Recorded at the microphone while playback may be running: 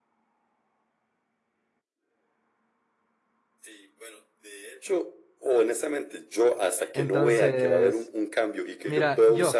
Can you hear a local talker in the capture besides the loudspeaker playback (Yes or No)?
Yes